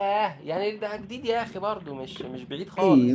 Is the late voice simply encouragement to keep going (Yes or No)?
No